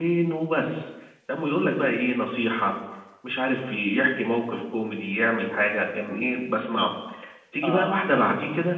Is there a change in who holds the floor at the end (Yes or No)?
No